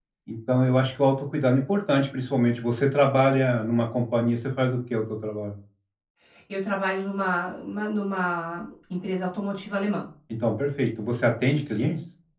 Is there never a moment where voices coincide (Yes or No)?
Yes